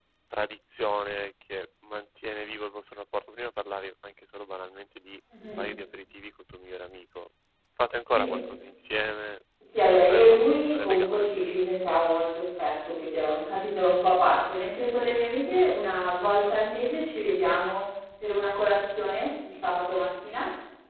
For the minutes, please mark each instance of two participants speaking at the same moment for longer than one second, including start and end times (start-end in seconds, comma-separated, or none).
9.8-11.3